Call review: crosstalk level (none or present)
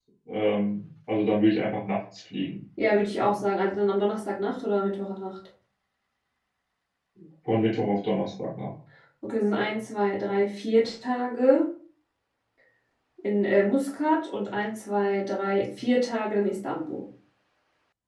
none